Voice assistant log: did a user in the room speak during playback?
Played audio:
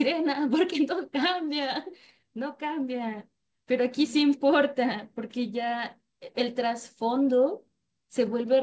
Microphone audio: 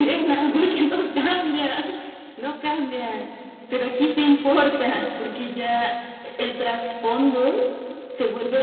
No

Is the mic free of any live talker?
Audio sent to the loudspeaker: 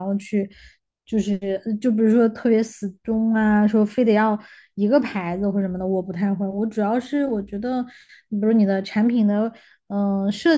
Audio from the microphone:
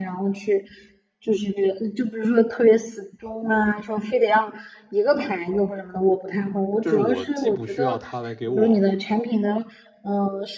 No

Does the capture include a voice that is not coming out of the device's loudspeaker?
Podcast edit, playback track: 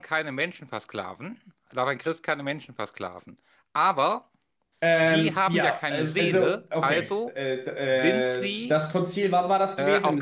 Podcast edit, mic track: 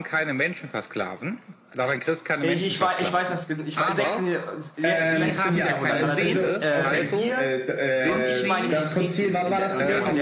Yes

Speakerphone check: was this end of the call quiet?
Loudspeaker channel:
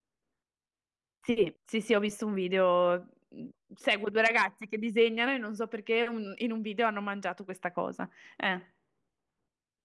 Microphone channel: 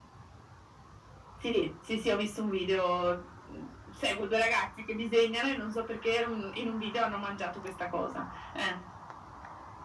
Yes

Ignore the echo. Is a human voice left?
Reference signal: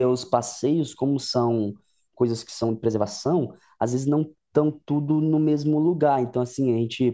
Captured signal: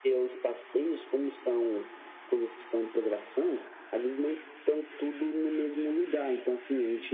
No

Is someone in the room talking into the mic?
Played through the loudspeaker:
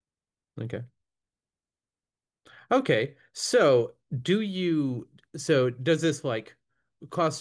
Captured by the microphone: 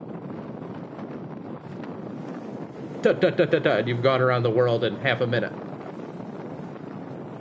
Yes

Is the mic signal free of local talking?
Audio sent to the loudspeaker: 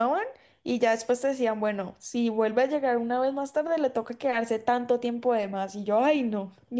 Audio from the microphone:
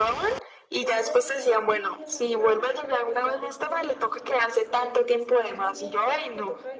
No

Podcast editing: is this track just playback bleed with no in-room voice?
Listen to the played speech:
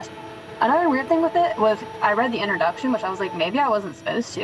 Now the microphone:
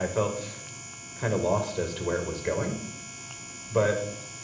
No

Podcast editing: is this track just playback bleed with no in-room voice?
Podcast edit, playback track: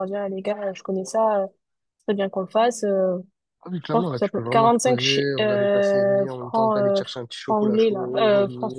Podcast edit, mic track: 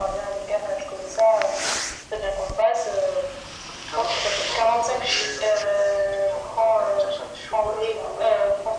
Yes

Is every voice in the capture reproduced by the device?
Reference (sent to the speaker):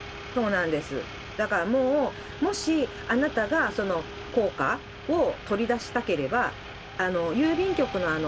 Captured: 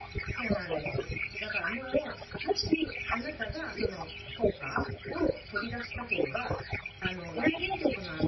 Yes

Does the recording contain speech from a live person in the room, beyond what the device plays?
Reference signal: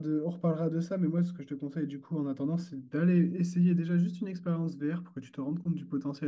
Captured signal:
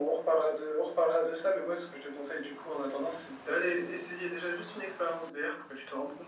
No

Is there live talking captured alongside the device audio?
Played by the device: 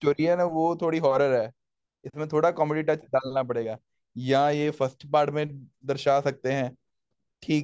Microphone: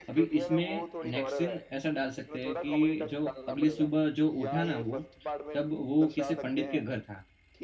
Yes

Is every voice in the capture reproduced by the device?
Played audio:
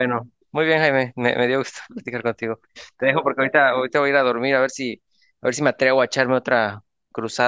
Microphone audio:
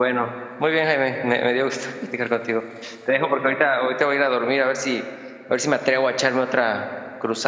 Yes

